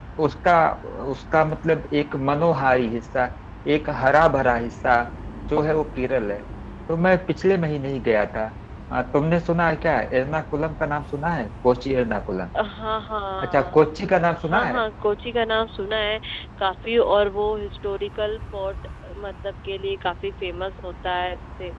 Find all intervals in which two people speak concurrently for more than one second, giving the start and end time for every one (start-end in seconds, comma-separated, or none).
none